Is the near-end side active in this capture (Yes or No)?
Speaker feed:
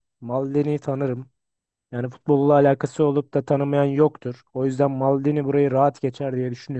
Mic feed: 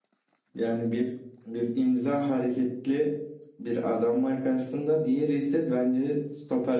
Yes